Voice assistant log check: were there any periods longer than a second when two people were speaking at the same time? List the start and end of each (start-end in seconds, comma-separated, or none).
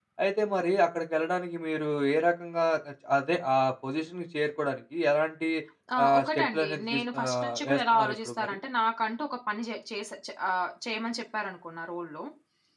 6.0-8.6